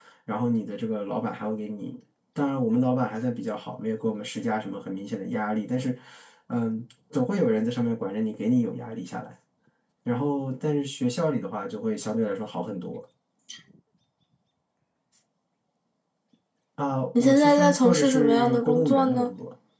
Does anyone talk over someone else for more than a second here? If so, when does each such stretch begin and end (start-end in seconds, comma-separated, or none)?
17.2-19.3